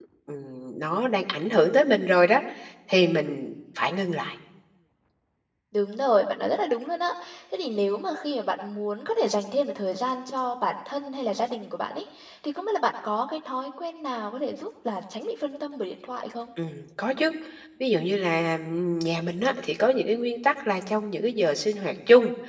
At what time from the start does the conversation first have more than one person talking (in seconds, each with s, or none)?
none